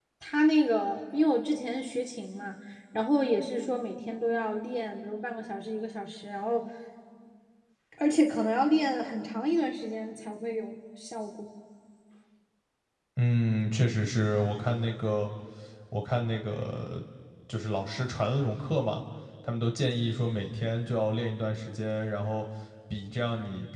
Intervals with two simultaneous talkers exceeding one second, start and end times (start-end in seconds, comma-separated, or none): none